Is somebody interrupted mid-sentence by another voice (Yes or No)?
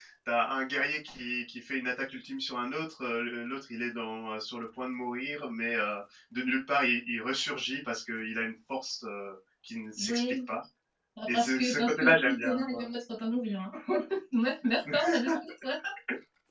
Yes